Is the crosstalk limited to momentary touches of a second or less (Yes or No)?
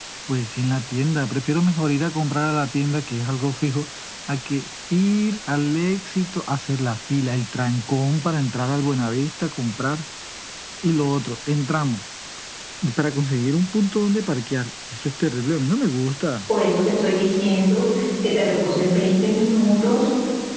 Yes